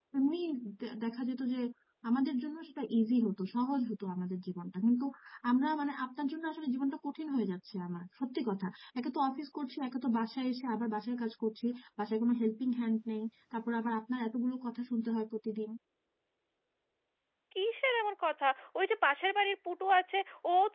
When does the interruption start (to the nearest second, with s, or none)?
none